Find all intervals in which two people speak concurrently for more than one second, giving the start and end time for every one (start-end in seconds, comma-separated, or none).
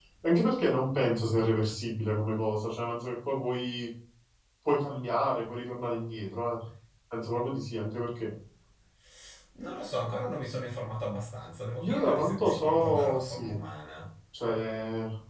11.8-13.5